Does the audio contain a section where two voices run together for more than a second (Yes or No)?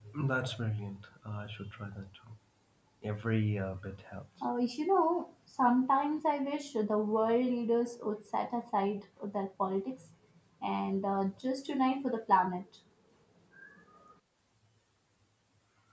No